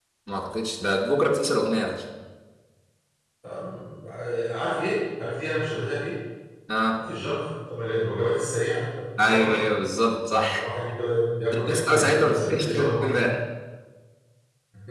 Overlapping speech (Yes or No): Yes